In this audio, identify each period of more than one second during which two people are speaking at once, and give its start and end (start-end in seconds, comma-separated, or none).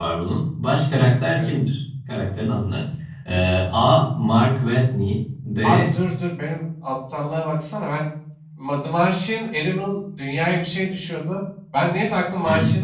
none